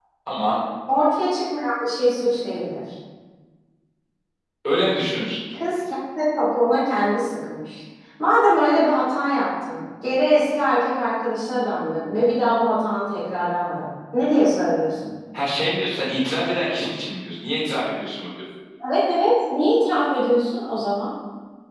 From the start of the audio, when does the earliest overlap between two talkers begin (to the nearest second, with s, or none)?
none